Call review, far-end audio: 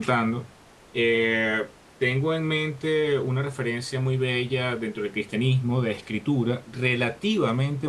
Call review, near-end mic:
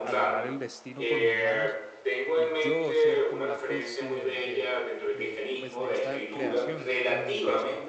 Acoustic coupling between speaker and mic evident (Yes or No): Yes